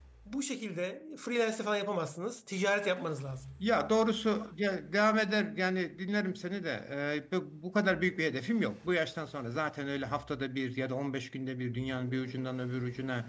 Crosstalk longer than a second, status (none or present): none